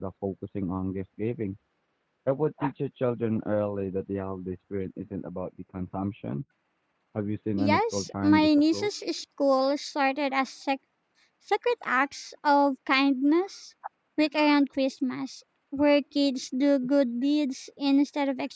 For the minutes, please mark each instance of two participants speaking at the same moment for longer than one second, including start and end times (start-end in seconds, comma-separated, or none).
7.6-8.9